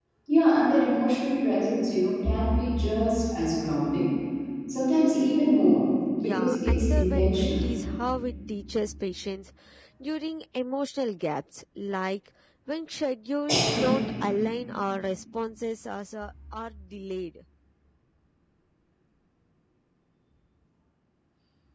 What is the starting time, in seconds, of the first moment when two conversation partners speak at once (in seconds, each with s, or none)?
6.2 s